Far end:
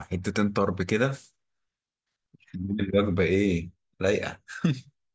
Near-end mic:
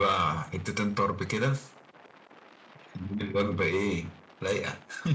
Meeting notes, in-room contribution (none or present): none